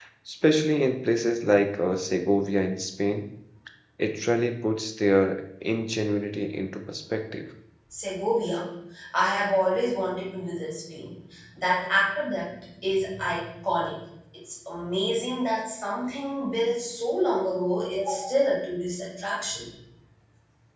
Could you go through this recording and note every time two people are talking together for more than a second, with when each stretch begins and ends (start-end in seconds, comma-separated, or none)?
none